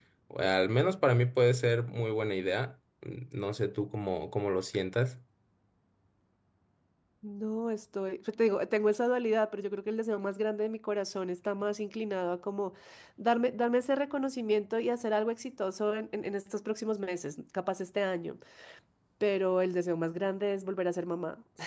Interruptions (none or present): none